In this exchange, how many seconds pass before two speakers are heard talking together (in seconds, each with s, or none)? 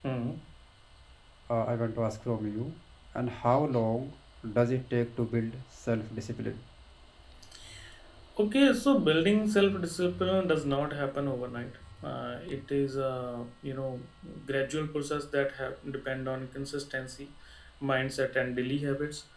none